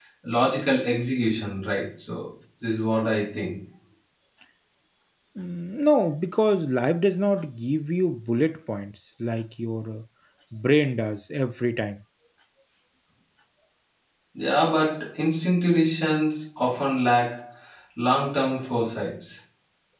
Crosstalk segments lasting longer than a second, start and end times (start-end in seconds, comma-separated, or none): none